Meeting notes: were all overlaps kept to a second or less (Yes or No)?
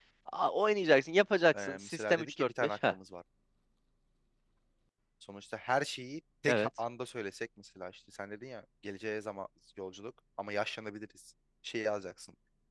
No